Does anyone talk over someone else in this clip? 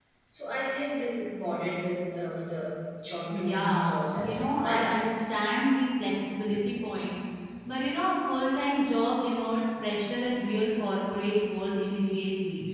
Yes, from 3.3 s

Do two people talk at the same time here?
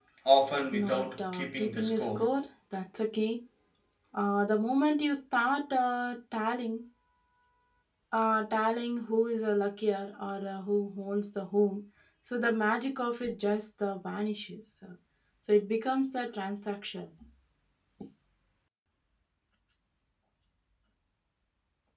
Yes, from 0.7 s

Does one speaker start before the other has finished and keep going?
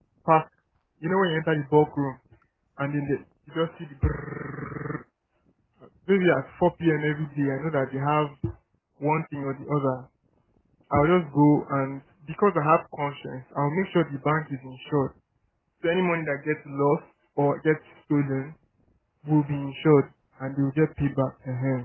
No

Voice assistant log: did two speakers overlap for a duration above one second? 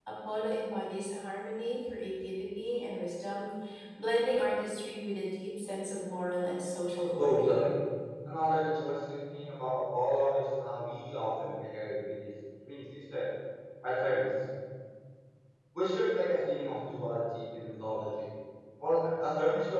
No

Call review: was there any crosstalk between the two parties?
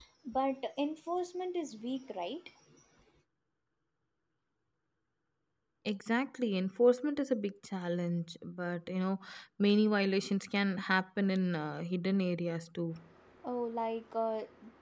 No

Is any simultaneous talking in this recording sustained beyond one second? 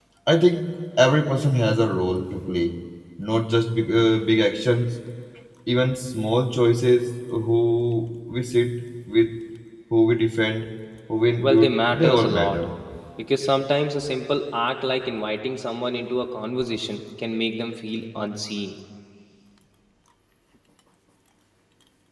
Yes, from 11.4 s

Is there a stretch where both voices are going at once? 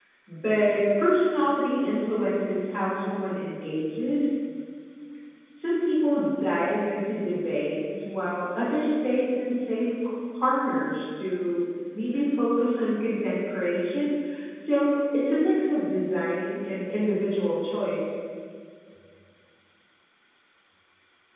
No

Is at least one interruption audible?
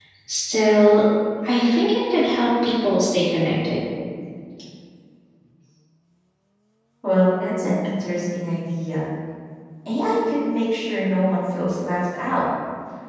No

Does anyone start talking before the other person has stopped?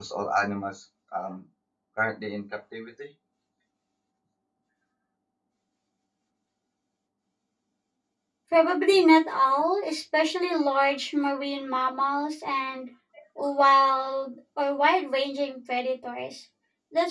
No

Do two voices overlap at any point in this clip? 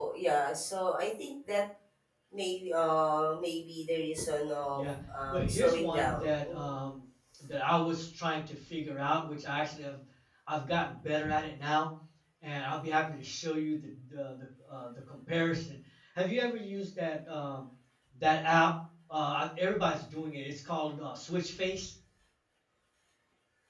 Yes, from 5.3 s

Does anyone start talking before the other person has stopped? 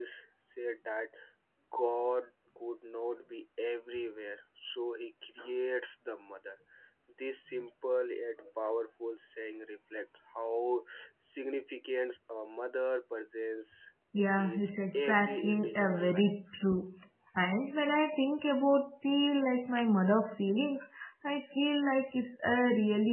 Yes, from 14.4 s

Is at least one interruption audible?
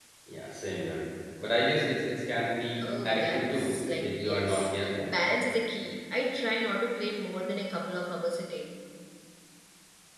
Yes, from 2.8 s

